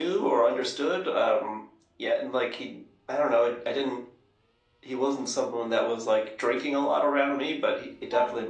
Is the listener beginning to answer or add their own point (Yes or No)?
No